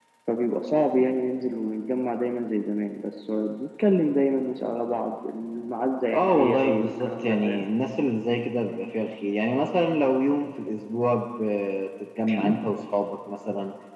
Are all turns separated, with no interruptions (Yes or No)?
No